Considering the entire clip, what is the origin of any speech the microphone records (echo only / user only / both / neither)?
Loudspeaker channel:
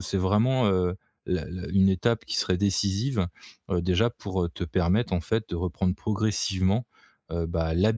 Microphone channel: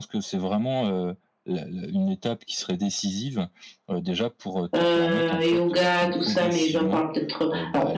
both